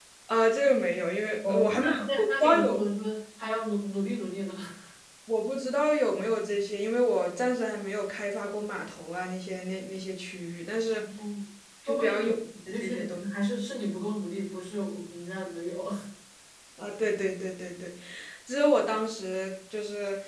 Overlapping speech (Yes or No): Yes